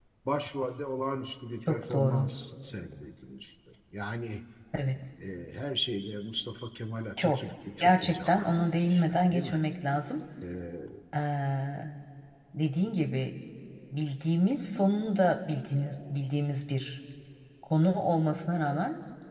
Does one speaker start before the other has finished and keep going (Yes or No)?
Yes